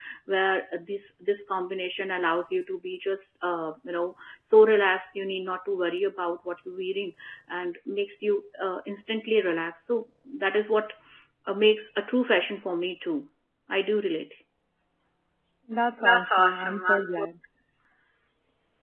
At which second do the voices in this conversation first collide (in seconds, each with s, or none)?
16.0 s